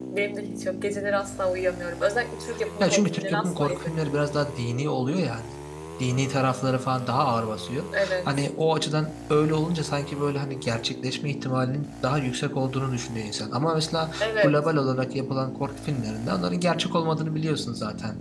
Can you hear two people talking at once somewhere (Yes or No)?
Yes